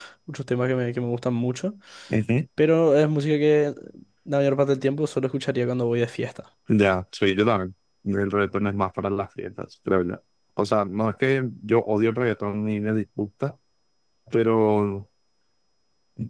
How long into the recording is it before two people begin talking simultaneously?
none

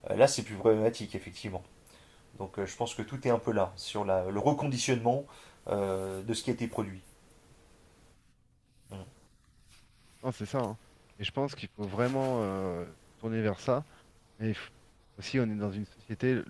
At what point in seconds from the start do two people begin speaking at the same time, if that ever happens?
none

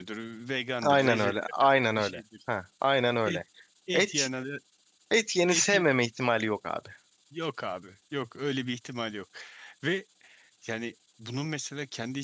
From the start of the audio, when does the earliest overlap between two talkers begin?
0.8 s

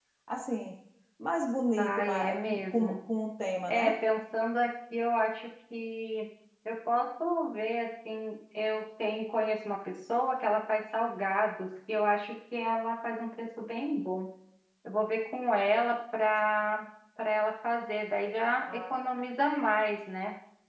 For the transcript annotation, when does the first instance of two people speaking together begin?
1.8 s

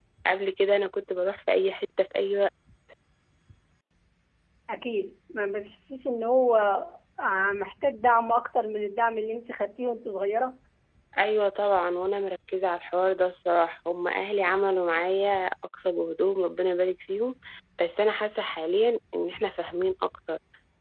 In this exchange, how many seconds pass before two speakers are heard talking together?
none

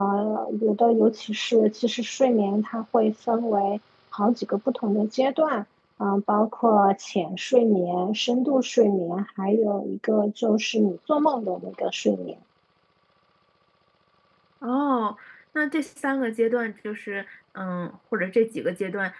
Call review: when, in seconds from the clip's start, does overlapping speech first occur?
none

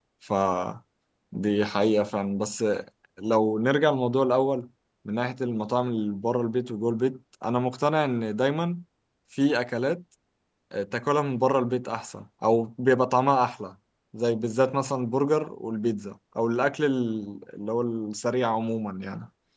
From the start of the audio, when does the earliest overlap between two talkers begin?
none

